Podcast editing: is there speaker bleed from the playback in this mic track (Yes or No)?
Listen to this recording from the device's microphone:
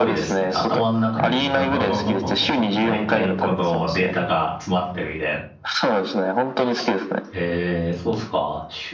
Yes